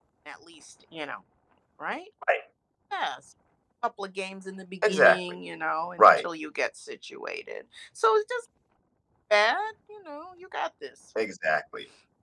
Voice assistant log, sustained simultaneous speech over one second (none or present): none